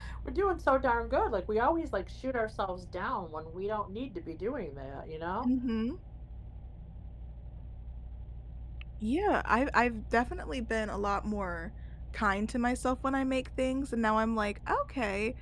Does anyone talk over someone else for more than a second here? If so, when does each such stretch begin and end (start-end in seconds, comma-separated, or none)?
none